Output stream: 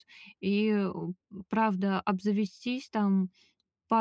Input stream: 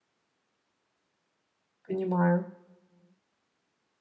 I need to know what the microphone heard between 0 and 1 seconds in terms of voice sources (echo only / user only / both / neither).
neither